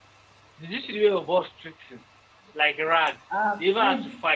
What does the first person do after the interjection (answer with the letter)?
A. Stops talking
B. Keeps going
A